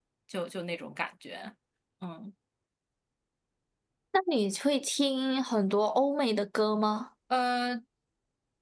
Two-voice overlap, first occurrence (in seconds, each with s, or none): none